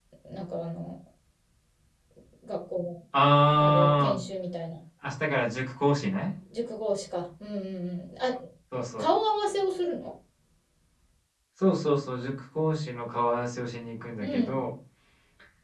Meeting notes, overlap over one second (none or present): none